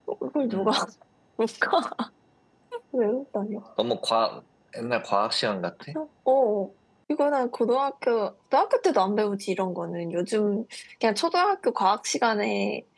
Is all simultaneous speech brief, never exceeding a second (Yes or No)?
Yes